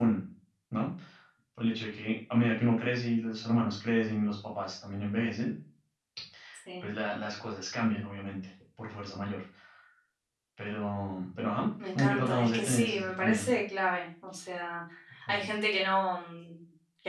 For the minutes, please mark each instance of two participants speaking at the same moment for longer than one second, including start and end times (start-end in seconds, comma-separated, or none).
11.9-13.5